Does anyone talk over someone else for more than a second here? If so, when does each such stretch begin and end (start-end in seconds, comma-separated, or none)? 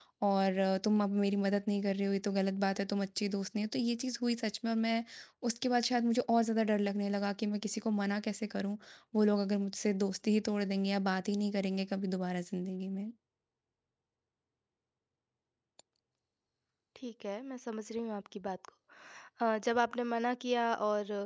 none